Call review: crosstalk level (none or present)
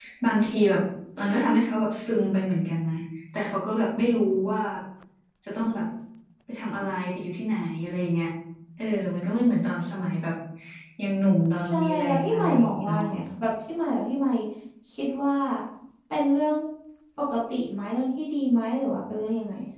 present